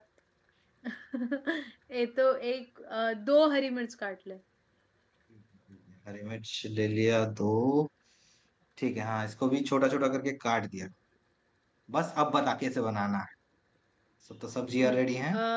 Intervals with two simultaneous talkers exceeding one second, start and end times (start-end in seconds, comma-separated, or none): none